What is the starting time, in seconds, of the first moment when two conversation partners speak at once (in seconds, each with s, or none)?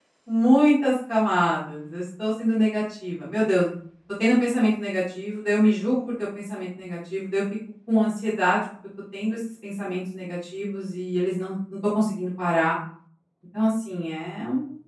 none